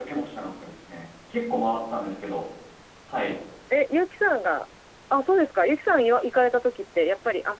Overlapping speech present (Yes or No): No